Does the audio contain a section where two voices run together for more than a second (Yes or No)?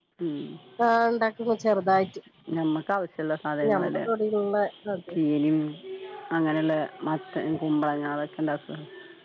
No